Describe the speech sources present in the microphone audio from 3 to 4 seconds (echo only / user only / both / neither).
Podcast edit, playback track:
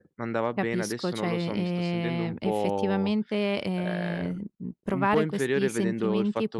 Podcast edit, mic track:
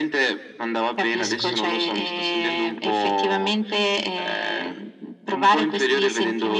echo only